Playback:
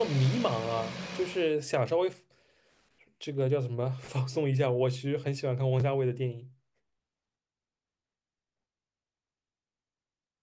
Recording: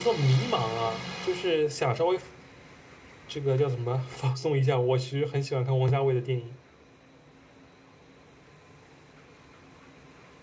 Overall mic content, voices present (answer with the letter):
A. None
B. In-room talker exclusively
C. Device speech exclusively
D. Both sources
C